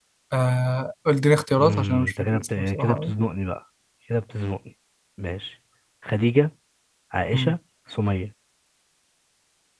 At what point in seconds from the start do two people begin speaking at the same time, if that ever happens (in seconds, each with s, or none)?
1.6 s